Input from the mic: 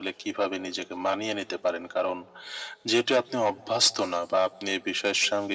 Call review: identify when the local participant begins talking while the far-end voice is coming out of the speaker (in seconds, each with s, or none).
none